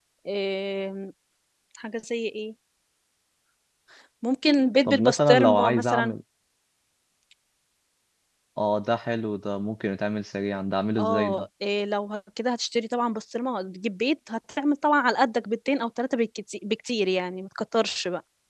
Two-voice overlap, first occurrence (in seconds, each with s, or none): 4.9 s